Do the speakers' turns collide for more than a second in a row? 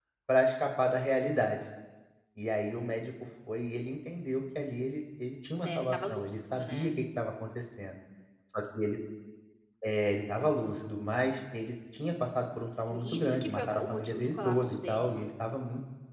Yes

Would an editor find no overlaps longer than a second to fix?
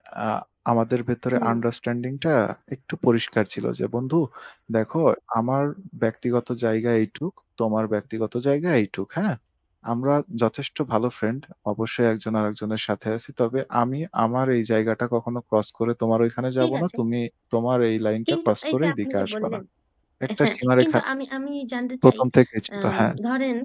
No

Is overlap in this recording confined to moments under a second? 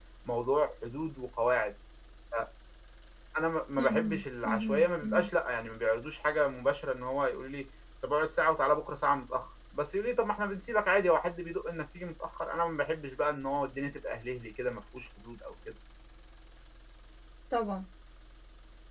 No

